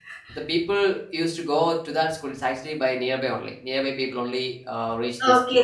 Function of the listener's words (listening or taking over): taking over